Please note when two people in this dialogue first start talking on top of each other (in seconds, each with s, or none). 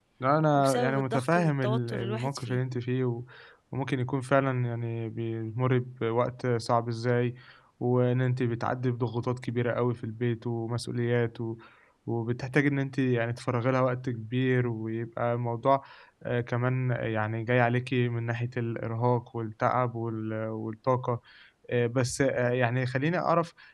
0.6 s